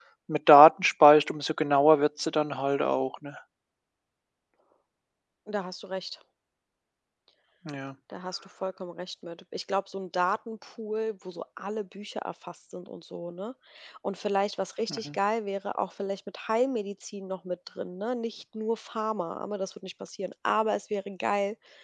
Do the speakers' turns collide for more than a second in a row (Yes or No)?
No